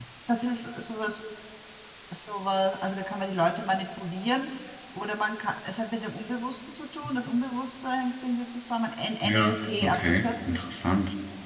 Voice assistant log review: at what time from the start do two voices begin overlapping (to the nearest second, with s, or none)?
9 s